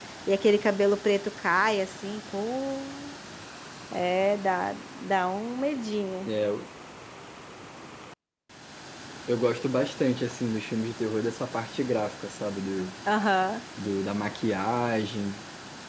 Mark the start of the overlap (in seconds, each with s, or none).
none